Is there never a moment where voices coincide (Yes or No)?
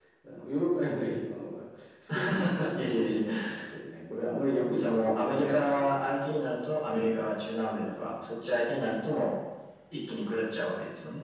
No